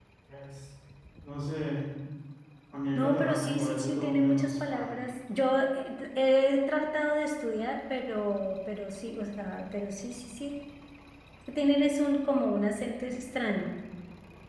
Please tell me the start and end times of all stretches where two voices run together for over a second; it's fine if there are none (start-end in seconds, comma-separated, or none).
3.0-5.0